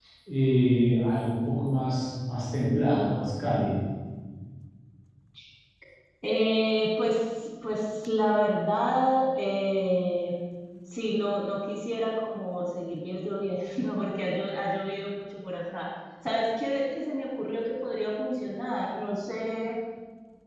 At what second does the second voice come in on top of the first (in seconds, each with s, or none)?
none